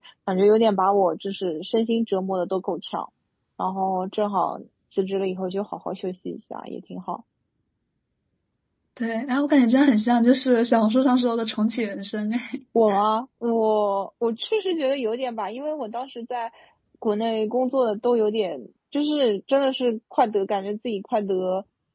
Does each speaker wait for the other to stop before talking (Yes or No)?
Yes